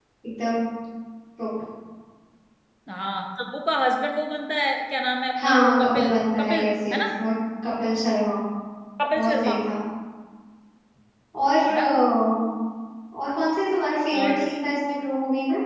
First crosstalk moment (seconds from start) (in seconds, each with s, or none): 5.4 s